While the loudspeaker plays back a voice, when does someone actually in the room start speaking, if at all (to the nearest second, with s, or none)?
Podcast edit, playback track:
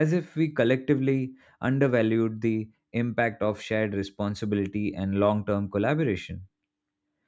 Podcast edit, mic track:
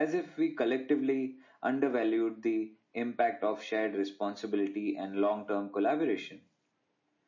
none